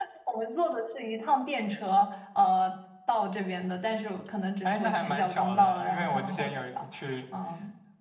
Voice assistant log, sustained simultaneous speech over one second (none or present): present